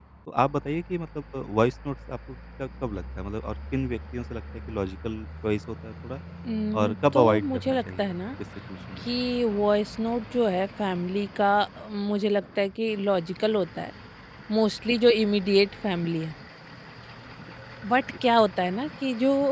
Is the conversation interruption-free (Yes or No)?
No